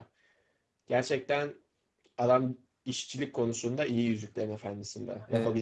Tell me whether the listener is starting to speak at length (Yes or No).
No